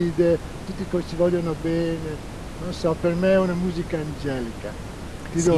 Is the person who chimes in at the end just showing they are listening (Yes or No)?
No